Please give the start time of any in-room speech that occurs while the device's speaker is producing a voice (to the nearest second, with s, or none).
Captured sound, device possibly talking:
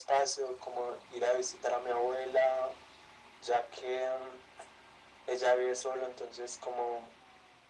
none